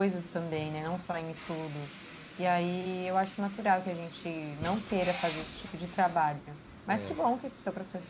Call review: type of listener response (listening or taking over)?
listening